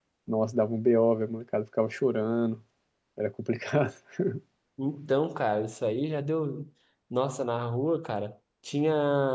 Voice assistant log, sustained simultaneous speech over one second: none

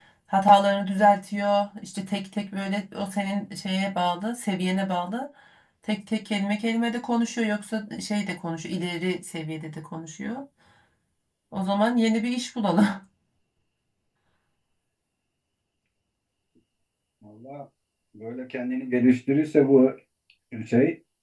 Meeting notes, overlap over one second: none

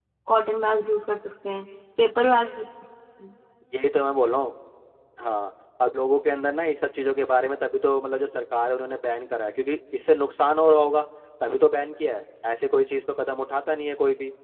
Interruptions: none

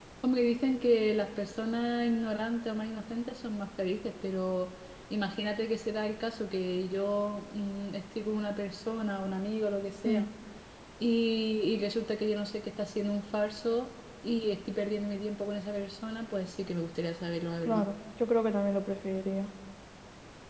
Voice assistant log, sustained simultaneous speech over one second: none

